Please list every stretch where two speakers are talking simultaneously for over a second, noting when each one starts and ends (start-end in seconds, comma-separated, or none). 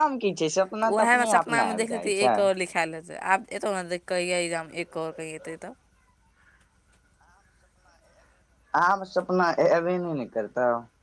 0.8-2.4